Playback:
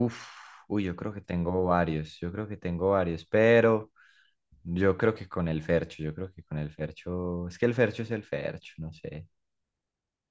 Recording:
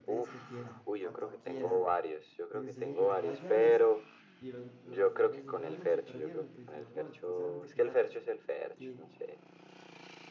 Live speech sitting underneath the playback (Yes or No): Yes